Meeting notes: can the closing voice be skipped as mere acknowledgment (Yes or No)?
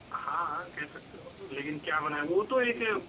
Yes